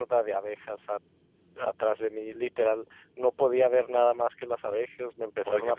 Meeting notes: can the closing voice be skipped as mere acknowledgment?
No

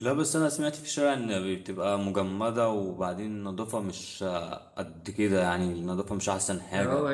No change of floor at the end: No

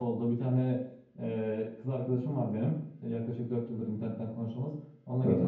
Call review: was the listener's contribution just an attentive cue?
Yes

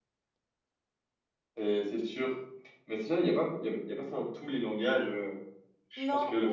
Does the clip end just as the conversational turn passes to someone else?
Yes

